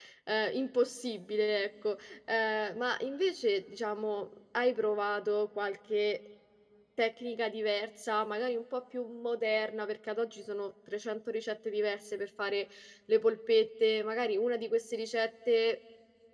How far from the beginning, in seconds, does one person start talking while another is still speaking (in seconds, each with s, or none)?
none